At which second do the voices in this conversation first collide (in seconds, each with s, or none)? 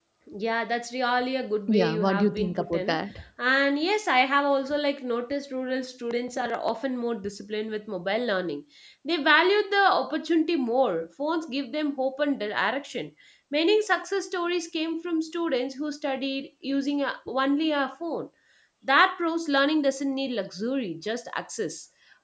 1.7 s